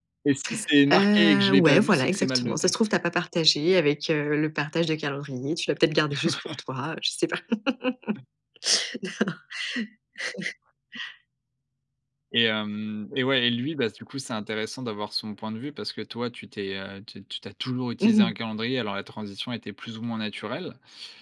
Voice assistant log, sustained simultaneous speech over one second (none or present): present